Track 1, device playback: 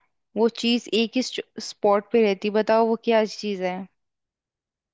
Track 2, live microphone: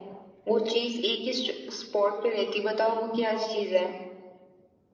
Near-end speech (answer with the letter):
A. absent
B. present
A